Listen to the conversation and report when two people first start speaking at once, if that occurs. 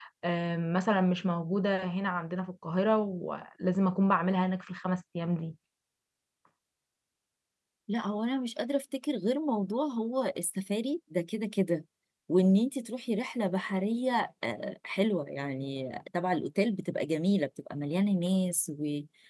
none

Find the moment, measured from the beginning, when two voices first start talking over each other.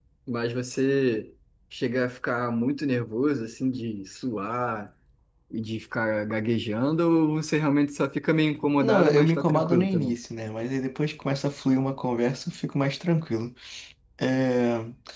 8.8 s

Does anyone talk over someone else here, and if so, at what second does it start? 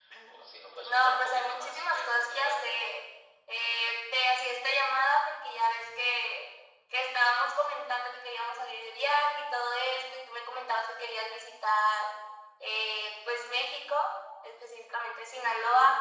0.8 s

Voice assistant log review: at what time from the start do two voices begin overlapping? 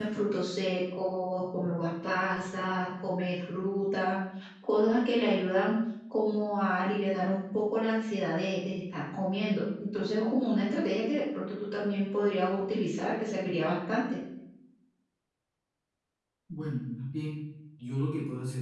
none

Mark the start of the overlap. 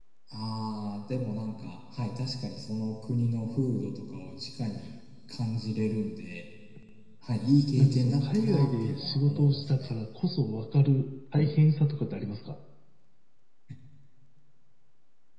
7.8 s

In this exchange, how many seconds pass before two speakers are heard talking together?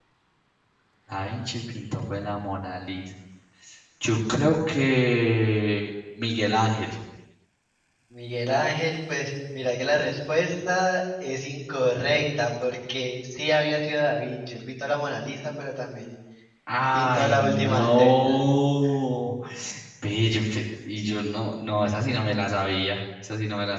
16.9 s

